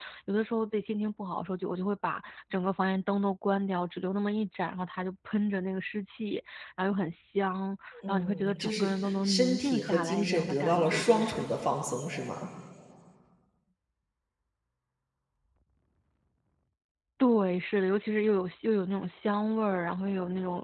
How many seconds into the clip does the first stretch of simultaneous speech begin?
8.1 s

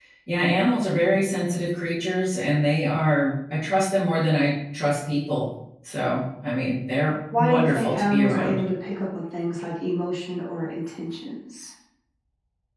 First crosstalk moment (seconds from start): 7.3 s

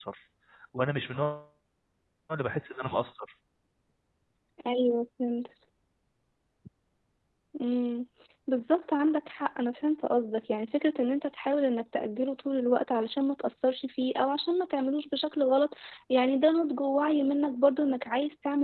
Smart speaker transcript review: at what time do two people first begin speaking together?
none

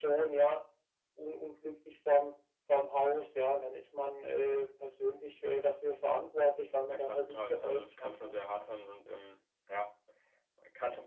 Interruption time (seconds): 6.9 s

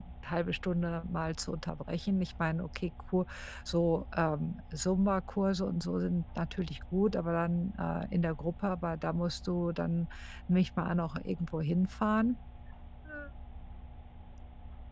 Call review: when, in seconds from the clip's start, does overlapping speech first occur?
none

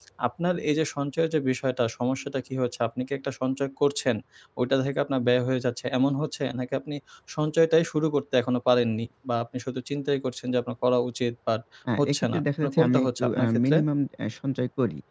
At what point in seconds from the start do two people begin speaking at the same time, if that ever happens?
12.0 s

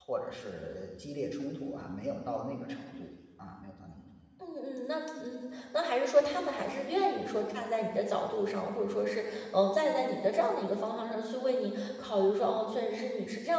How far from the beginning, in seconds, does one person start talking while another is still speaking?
none

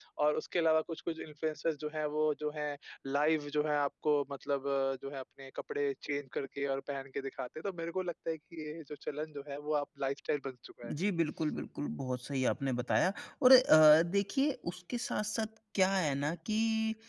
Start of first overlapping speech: none

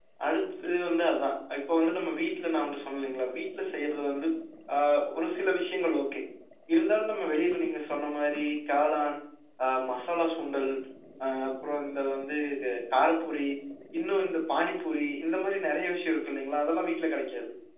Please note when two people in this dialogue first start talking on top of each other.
none

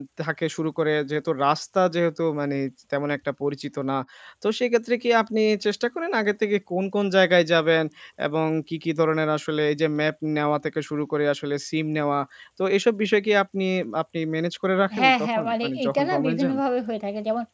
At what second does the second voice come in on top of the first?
14.9 s

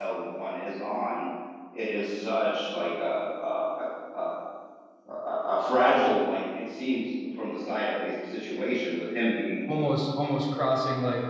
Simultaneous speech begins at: none

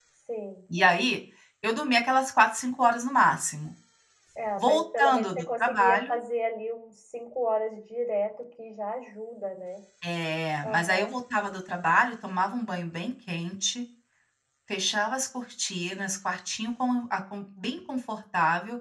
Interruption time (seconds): 4.6 s

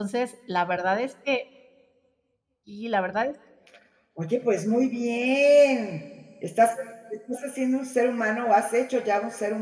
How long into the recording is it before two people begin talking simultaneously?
none

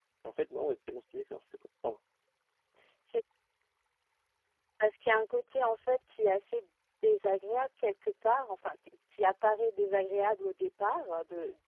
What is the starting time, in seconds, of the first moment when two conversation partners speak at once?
none

